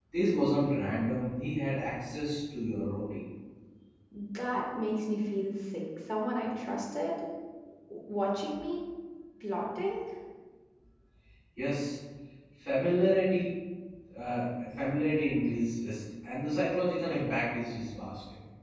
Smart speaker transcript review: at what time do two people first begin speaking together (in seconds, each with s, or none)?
none